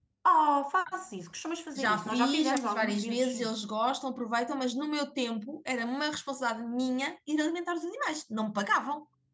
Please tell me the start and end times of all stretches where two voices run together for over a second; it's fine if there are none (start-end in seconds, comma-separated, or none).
1.8-3.5